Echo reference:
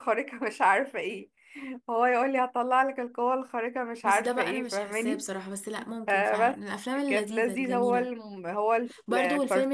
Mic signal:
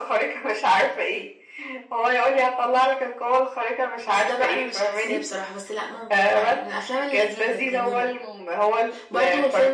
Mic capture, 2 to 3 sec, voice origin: echo only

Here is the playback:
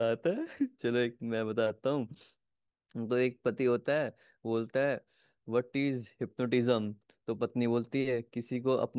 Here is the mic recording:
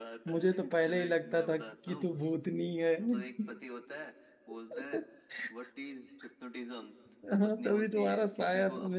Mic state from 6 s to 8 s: both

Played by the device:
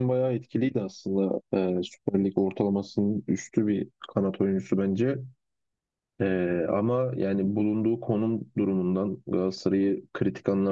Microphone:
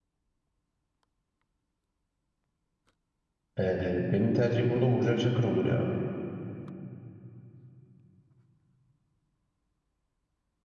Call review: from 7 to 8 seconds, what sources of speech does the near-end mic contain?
neither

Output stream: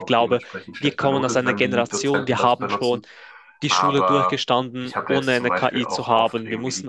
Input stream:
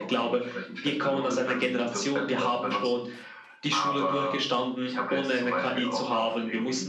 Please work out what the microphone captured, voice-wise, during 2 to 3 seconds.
echo only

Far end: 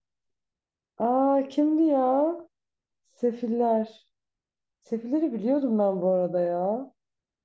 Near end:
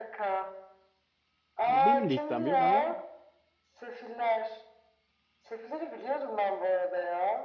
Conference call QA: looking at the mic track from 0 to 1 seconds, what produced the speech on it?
echo only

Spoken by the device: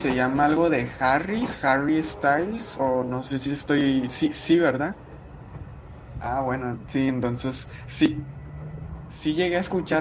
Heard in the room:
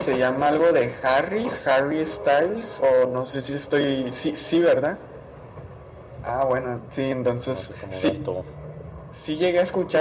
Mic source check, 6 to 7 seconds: echo only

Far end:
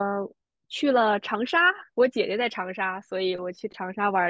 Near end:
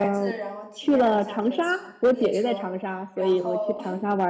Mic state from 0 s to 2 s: both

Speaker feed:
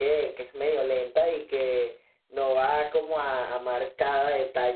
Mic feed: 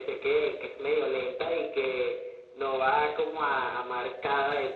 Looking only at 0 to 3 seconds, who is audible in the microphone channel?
echo only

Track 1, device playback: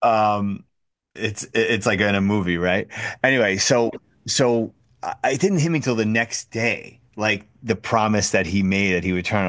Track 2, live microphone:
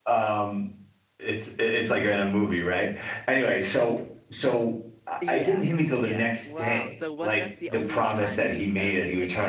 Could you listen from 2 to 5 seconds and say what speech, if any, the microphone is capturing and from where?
echo only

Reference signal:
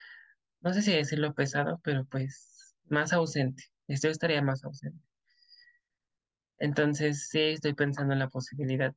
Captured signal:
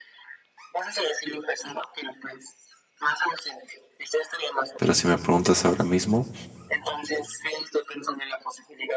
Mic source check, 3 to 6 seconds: both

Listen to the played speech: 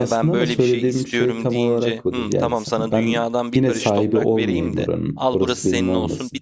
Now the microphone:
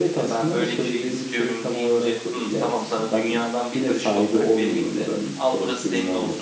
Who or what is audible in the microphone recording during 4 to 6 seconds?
echo only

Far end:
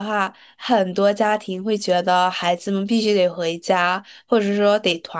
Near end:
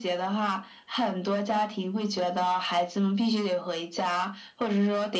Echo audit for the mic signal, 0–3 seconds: echo only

